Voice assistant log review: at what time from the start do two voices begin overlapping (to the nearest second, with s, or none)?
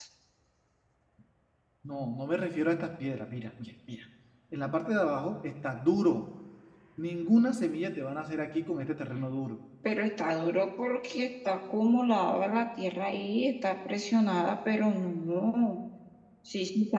none